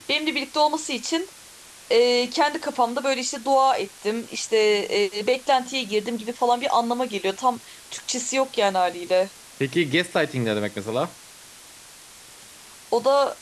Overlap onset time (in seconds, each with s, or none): none